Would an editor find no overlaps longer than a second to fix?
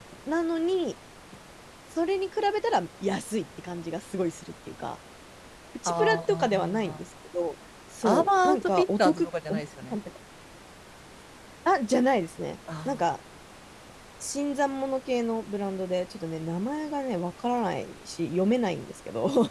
No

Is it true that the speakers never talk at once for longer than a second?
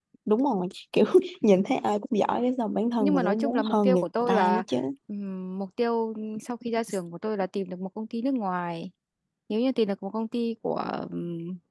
No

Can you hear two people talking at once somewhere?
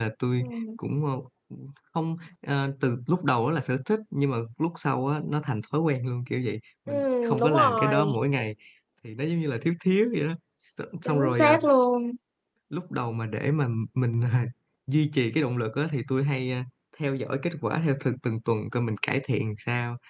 Yes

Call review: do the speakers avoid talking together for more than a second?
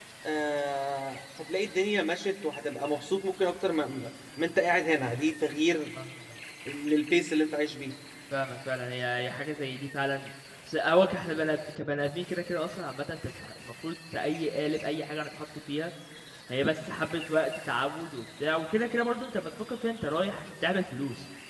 Yes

